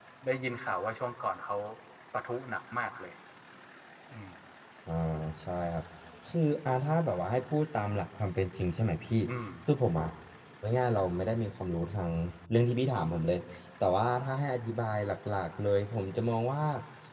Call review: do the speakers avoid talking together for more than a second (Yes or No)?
Yes